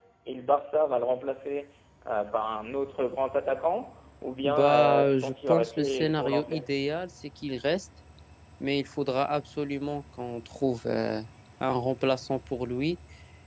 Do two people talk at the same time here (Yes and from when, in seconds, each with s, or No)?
Yes, from 4.4 s